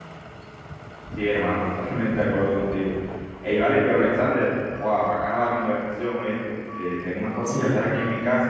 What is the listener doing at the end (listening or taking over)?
listening